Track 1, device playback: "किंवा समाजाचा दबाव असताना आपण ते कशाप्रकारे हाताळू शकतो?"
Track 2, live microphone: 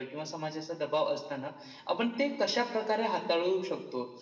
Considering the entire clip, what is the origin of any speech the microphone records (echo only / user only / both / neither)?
echo only